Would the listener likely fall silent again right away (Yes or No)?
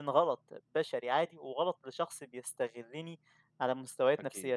Yes